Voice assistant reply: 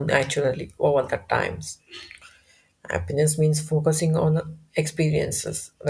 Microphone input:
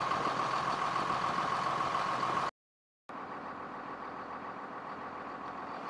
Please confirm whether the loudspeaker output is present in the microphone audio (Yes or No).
No